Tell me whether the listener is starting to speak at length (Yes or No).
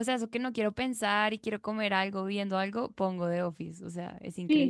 Yes